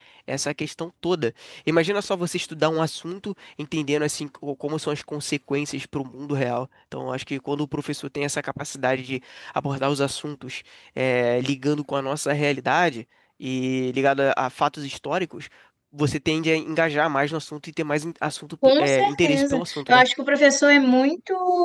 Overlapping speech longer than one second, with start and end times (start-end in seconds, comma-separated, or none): 18.8-20.0